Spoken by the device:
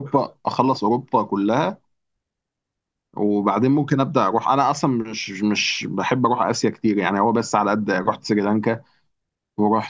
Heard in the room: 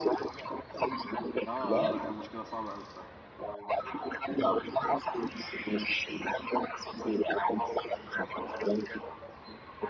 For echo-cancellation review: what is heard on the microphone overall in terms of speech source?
both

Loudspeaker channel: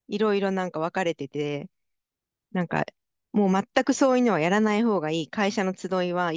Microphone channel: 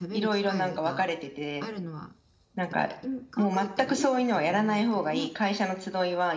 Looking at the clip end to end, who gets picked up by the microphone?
both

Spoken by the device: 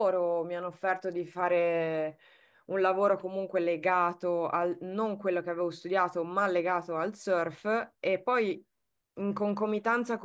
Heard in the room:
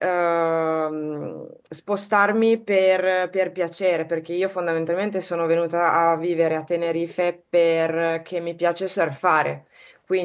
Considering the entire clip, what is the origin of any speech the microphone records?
user only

